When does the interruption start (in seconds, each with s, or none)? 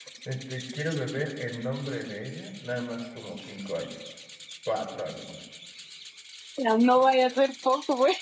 none